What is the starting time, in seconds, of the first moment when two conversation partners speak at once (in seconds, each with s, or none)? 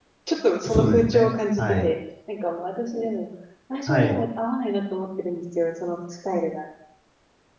0.7 s